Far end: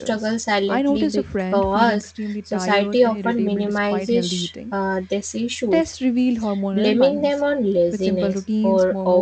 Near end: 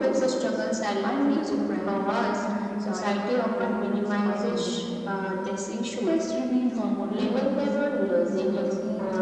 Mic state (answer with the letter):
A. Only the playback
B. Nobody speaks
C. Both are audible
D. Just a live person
A